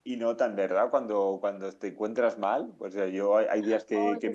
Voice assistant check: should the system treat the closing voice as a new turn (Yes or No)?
No